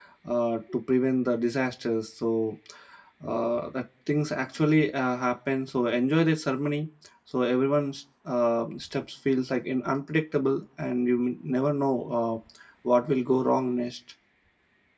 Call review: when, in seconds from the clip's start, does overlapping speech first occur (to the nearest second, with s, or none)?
none